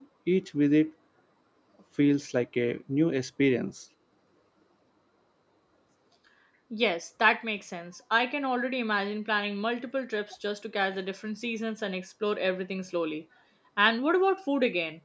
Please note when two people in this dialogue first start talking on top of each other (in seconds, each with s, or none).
none